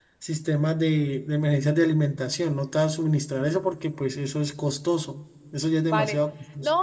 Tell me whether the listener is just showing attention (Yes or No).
No